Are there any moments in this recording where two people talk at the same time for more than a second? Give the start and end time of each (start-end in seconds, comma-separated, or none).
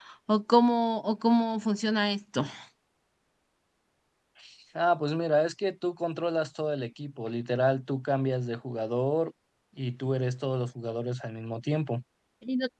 none